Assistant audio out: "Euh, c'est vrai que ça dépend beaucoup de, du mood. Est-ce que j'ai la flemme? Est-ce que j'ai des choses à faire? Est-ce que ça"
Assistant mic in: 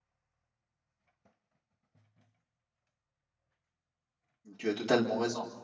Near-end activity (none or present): present